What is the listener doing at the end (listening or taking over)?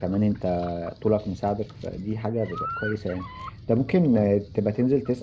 listening